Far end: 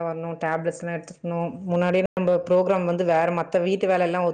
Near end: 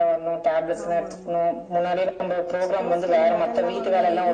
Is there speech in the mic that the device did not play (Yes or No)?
Yes